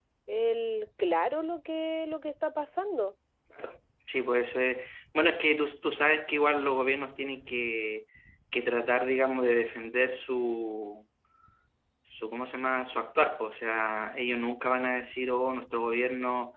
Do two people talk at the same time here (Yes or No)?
No